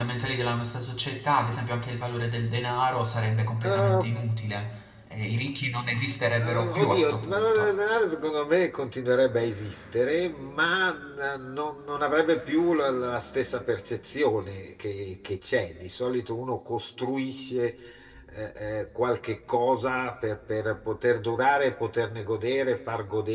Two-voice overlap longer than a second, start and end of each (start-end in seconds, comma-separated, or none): 6.4-7.8